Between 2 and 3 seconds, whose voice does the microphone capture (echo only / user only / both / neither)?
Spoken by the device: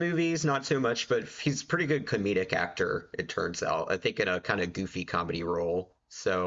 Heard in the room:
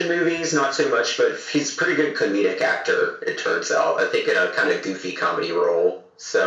echo only